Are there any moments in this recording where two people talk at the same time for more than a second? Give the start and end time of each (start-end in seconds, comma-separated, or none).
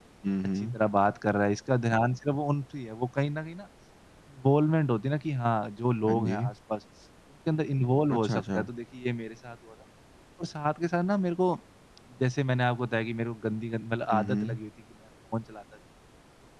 none